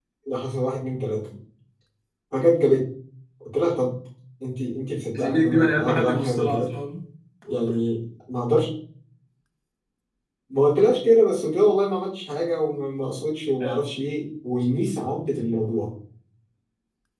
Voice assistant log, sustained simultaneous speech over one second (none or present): present